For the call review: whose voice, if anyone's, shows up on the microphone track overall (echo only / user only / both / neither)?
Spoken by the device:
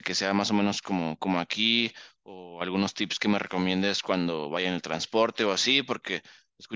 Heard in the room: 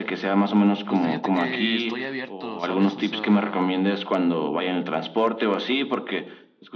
both